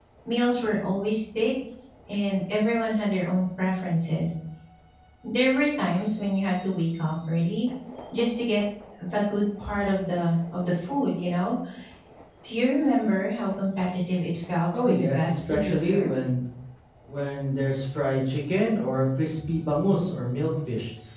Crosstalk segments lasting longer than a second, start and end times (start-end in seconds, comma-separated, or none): 14.7-16.1